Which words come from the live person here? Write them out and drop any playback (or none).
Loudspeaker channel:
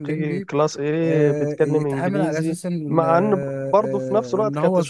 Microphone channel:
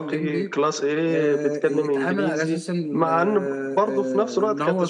none